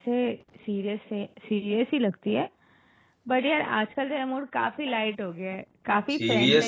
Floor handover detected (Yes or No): Yes